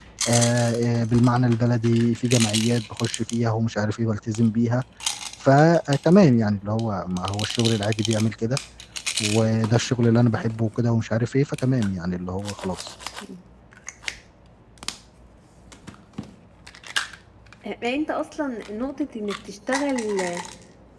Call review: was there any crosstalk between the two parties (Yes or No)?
No